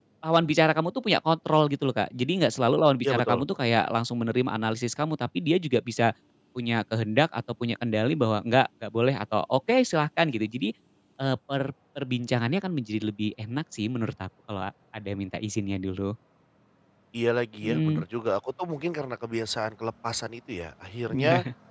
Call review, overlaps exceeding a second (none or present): none